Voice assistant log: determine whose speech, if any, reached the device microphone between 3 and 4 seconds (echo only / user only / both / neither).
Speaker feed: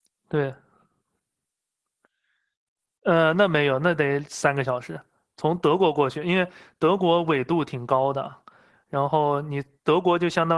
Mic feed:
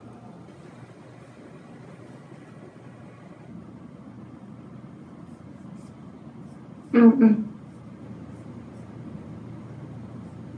neither